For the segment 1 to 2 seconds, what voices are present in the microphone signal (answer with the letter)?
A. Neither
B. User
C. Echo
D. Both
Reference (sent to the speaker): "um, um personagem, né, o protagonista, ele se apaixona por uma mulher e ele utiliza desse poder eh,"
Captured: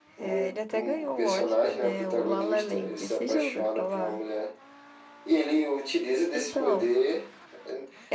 D